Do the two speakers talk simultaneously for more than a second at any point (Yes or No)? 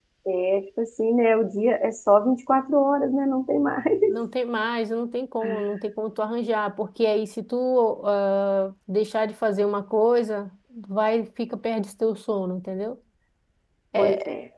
No